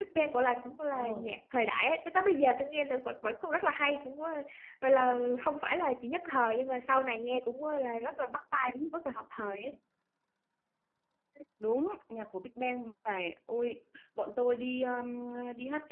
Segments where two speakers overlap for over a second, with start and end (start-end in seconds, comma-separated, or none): none